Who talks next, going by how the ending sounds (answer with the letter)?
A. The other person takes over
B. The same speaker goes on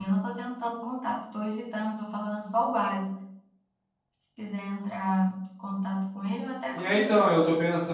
A